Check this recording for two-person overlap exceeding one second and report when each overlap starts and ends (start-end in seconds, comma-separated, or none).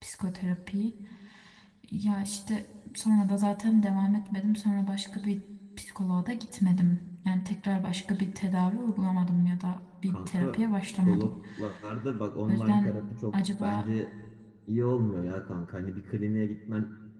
10.1-11.3